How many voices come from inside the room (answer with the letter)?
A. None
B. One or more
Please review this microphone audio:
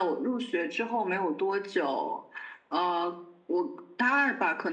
A